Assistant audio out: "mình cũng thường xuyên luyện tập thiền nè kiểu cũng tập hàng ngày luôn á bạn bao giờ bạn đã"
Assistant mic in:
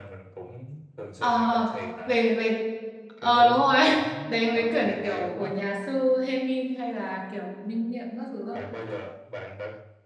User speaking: Yes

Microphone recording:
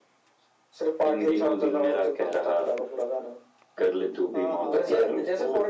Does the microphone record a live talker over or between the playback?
Yes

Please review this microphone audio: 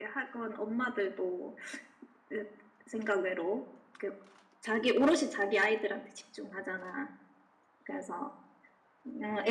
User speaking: Yes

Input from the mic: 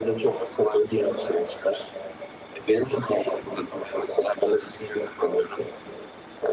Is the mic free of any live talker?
Yes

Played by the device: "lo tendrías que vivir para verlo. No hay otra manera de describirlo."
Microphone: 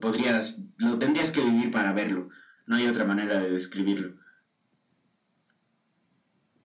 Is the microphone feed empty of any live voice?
Yes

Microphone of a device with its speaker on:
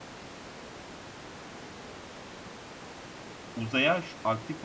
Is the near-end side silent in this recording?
No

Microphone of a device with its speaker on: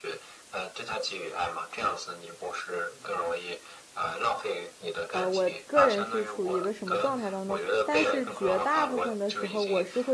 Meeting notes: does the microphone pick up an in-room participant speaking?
Yes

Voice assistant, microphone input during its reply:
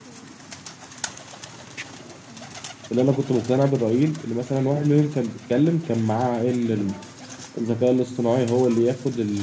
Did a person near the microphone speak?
Yes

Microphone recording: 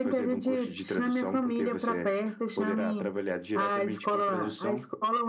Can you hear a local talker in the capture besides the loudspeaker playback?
No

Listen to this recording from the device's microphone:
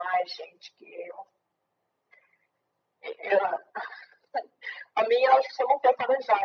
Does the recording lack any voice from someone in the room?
Yes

